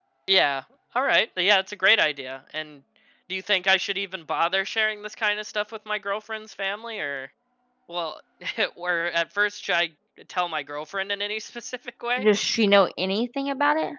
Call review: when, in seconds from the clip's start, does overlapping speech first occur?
none

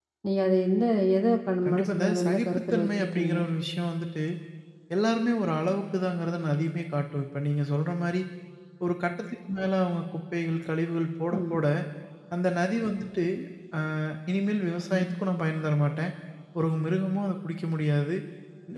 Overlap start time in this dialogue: 1.6 s

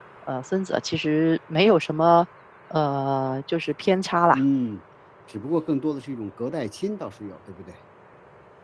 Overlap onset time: none

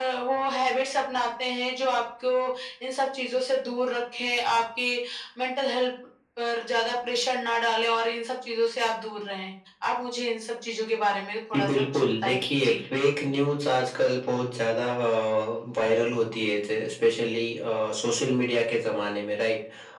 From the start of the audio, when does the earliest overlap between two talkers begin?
11.5 s

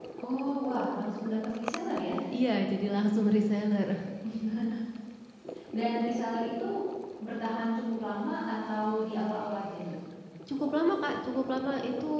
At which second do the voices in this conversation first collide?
none

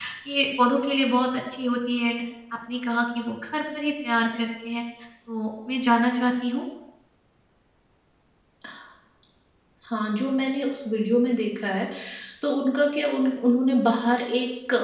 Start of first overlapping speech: none

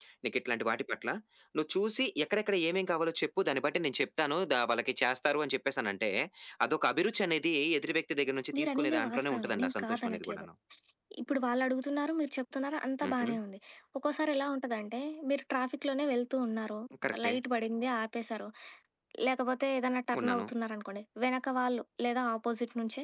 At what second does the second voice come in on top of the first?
8.6 s

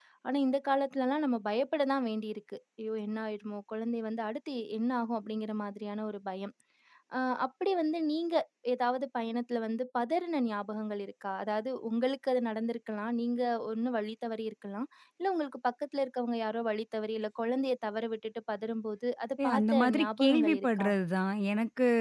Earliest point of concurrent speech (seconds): 19.4 s

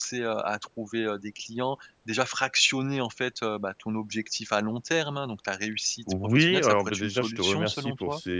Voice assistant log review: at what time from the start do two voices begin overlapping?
6.1 s

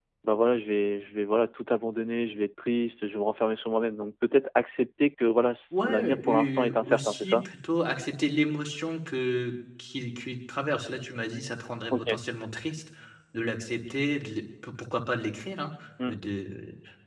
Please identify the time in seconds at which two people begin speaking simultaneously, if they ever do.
5.7 s

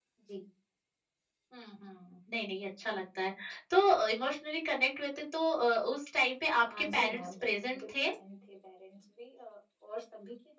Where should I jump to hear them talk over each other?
6.6 s

